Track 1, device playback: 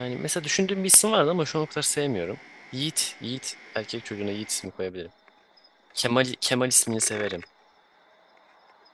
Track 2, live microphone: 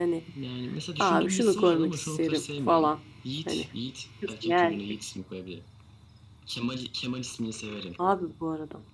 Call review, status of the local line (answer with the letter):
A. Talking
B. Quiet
A